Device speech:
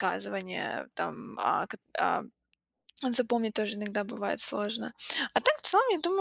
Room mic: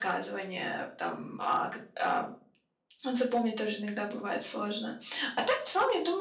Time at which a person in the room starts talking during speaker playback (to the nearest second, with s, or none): none